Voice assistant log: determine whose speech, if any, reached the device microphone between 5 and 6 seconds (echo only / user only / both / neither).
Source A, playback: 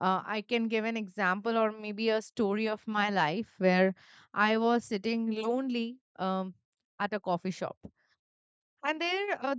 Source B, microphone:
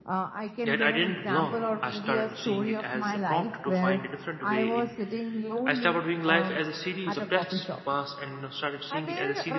both